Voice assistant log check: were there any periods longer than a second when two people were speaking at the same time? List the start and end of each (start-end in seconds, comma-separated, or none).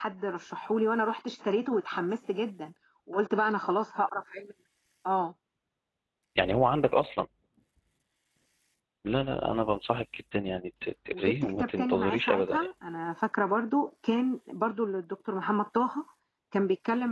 11.1-12.7